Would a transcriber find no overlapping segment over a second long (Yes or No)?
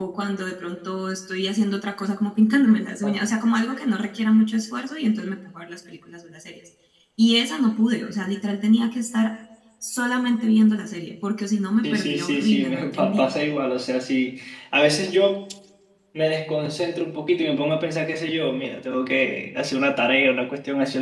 No